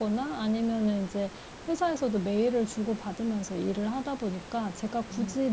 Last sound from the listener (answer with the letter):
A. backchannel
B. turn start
A